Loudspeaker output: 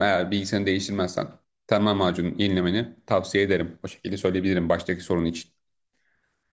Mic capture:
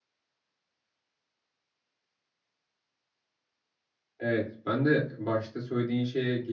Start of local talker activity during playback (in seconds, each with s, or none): 4.2 s